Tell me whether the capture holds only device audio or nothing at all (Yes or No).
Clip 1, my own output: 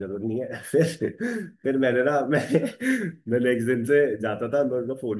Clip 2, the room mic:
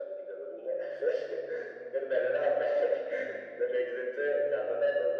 Yes